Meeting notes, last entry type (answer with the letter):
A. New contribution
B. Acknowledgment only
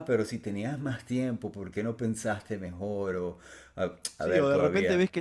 A